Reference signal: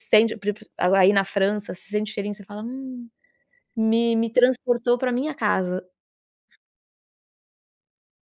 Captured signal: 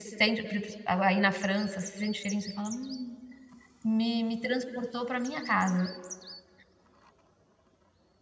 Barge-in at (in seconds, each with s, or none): none